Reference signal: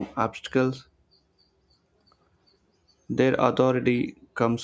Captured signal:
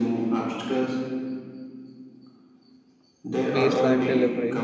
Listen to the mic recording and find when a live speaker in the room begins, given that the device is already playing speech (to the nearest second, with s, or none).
4 s